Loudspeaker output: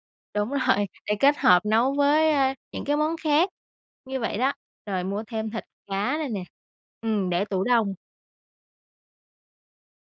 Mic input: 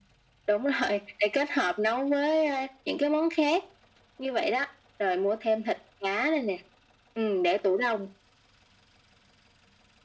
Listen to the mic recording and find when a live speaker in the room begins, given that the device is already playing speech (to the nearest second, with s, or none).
none